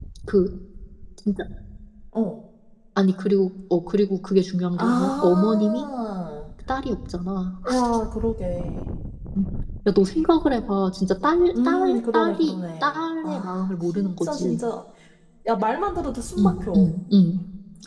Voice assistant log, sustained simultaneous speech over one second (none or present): present